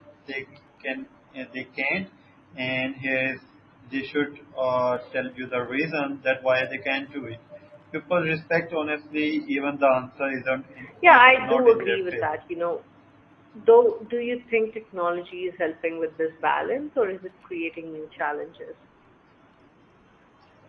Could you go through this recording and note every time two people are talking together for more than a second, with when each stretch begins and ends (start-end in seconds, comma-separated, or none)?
11.1-12.4